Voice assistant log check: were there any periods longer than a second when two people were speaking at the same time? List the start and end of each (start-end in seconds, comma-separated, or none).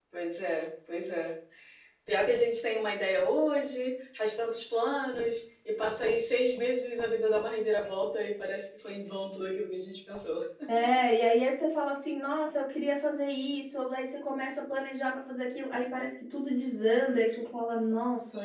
none